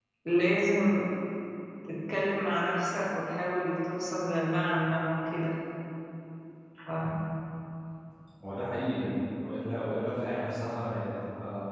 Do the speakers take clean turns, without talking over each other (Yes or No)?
Yes